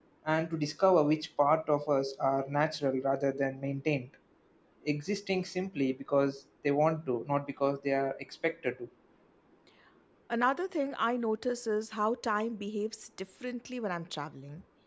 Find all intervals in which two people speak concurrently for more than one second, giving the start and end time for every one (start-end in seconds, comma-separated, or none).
none